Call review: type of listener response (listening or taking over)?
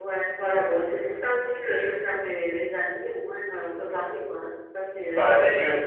taking over